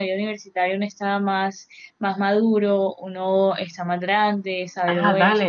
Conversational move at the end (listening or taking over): taking over